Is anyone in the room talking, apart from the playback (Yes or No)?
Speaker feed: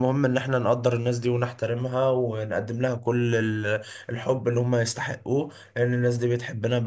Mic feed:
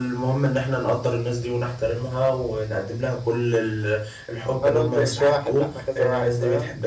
Yes